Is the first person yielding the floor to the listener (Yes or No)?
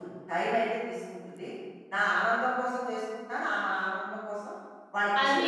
Yes